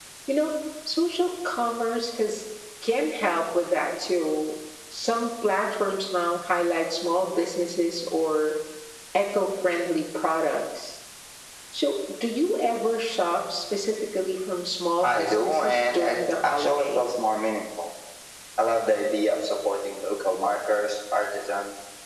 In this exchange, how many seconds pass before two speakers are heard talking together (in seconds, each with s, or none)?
15.0 s